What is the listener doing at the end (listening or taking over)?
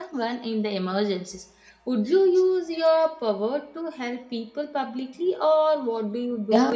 taking over